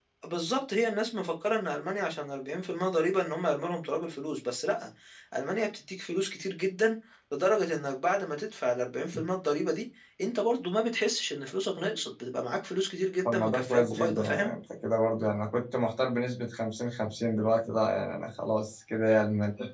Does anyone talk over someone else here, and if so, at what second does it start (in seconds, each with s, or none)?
13.2 s